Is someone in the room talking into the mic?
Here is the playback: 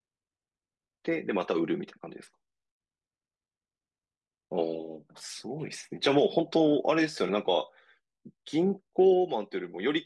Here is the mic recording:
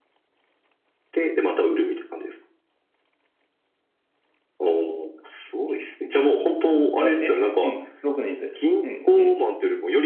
Yes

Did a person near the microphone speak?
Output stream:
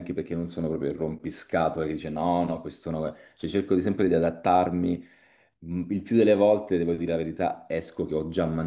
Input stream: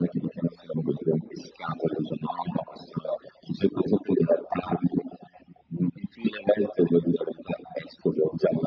No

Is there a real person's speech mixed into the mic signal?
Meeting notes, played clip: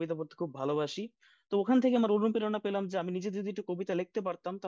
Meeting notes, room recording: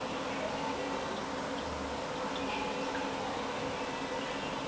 No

